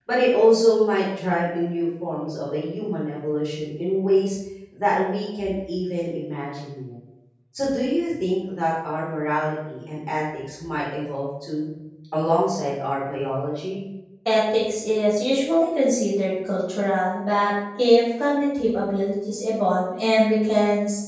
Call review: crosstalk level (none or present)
none